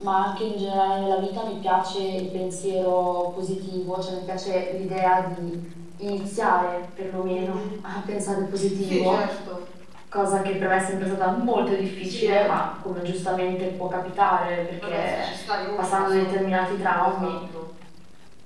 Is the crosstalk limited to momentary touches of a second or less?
No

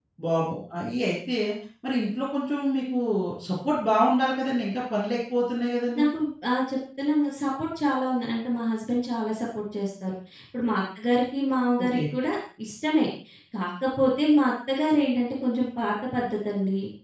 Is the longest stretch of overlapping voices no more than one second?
Yes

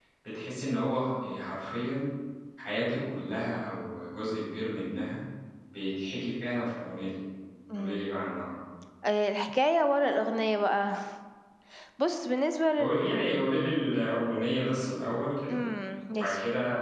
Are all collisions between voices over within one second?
Yes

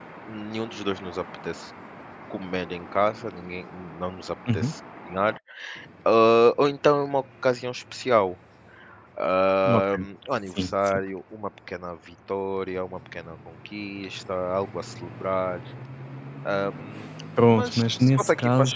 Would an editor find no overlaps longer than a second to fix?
No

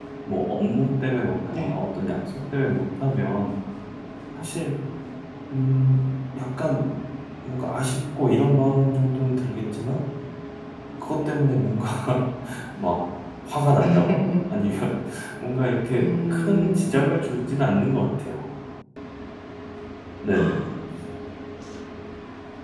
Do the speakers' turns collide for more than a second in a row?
Yes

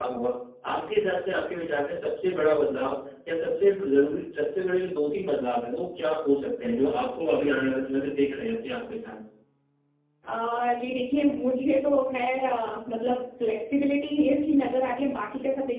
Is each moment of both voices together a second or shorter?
Yes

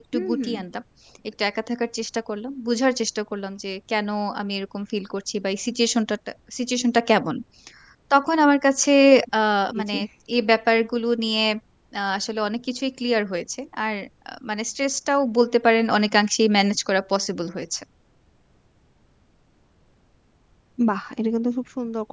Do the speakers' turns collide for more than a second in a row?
No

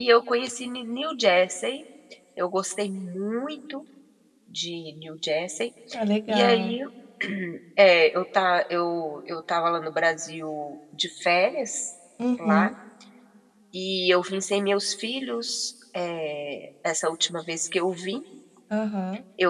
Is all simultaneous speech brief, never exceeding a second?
Yes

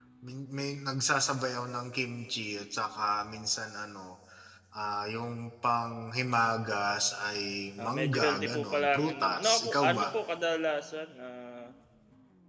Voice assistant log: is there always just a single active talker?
No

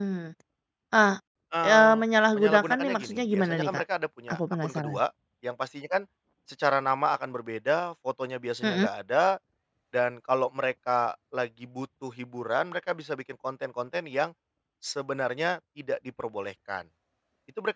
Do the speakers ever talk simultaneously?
Yes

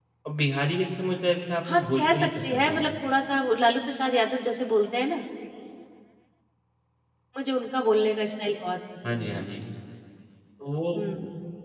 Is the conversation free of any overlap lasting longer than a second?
No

